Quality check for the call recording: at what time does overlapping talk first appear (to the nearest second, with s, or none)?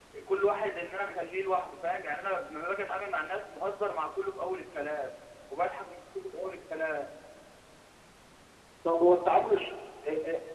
none